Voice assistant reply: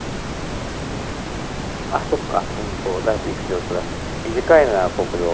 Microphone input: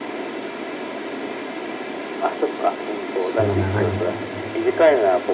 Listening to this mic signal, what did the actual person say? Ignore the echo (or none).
そんな長いんだ。